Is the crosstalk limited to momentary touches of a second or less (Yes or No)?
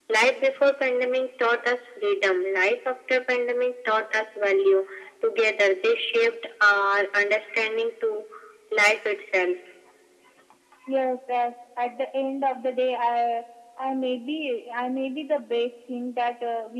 Yes